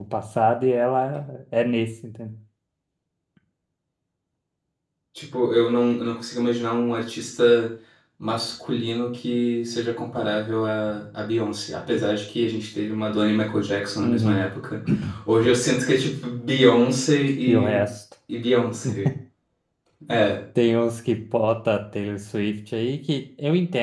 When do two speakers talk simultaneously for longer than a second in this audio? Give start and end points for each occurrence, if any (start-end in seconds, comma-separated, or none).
none